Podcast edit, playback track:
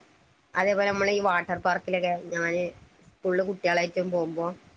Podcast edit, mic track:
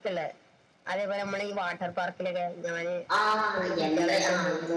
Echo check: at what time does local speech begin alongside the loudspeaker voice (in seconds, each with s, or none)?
3.2 s